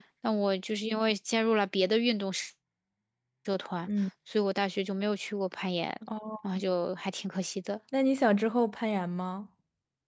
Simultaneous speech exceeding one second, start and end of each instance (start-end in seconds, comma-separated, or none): none